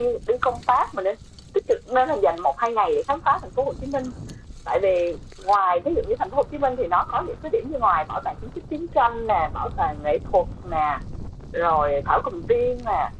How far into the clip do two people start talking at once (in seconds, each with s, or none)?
none